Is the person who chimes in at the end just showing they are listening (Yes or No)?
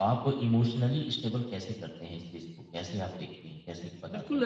No